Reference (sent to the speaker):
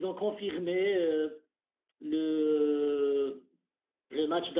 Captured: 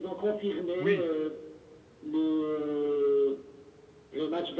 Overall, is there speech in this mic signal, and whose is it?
both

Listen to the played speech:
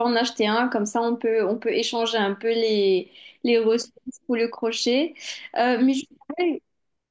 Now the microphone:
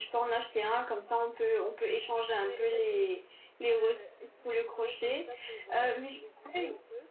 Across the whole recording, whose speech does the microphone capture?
both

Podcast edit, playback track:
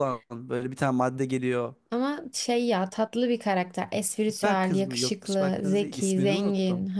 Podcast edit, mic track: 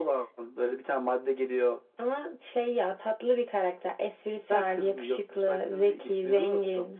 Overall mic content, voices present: echo only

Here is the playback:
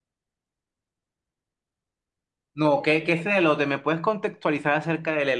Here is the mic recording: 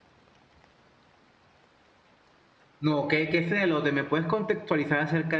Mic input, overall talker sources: echo only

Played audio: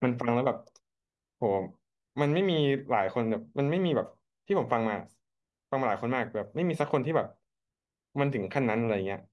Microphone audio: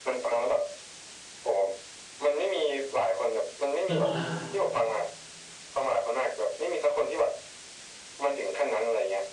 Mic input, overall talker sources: both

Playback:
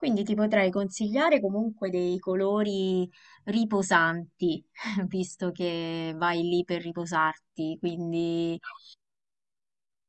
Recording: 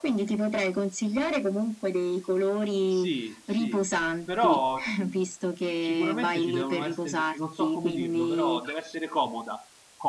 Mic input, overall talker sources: both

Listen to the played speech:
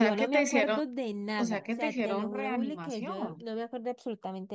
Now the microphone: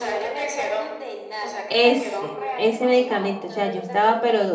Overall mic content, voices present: both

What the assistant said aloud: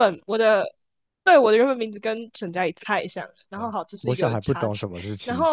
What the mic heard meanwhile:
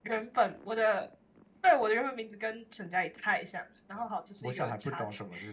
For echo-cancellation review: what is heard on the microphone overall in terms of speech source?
echo only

